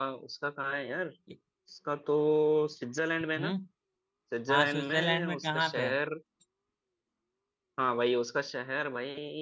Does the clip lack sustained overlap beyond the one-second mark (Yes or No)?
No